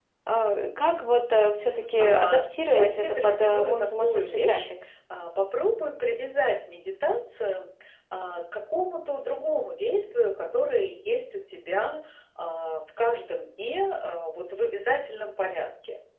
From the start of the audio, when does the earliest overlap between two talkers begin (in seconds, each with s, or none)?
2.0 s